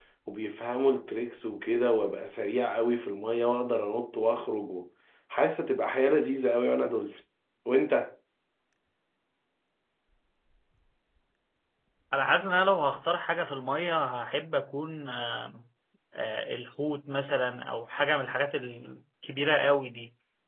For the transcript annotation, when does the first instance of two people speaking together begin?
none

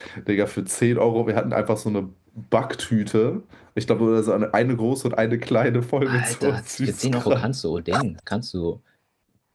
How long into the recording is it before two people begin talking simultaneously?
6.0 s

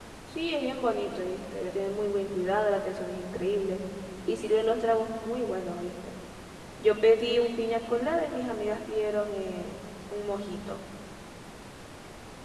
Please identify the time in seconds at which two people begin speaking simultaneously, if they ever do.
none

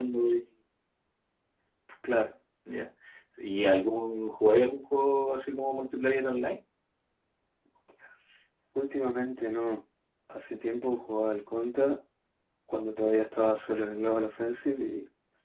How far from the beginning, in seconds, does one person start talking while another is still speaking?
none

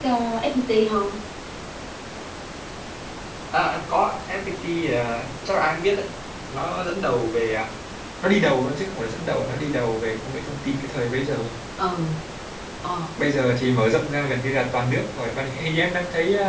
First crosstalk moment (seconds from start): none

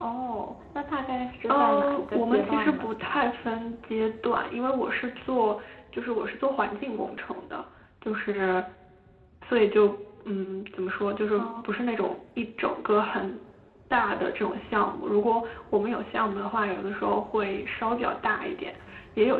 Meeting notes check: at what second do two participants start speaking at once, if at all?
1.5 s

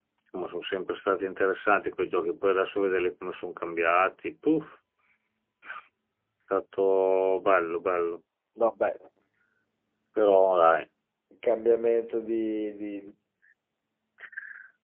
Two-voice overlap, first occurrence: none

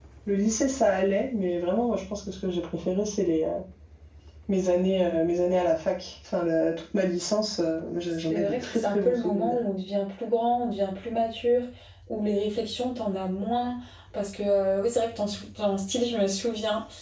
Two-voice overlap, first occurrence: 8.3 s

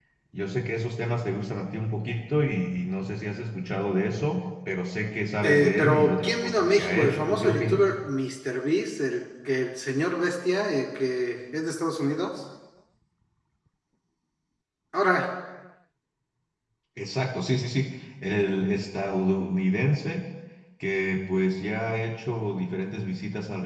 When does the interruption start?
5.4 s

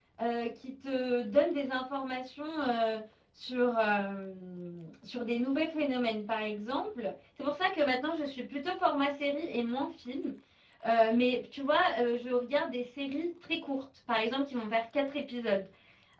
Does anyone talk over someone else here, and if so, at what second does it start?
none

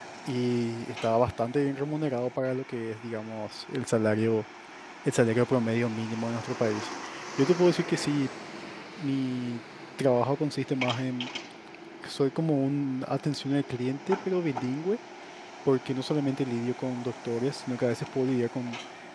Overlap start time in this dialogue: none

